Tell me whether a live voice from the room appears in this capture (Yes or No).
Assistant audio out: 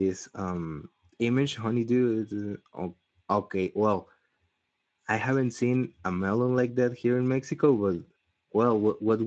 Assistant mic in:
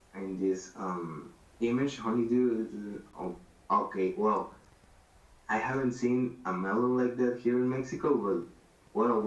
No